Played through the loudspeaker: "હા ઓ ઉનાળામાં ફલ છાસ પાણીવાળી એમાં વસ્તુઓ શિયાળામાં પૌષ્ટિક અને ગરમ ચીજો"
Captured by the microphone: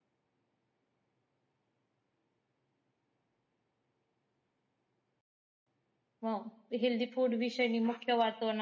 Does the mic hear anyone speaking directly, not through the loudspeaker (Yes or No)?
Yes